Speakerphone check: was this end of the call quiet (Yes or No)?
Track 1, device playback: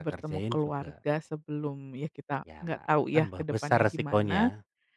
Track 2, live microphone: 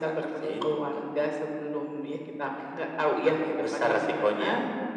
Yes